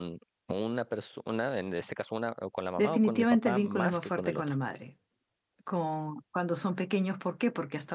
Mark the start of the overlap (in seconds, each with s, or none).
2.8 s